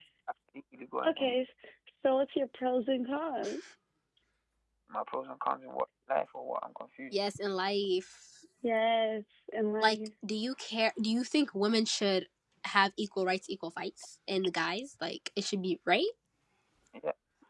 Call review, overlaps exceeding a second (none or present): none